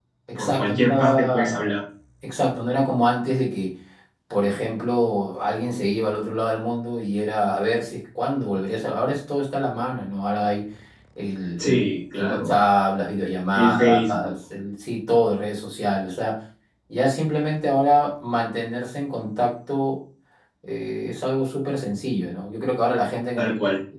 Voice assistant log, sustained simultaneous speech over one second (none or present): present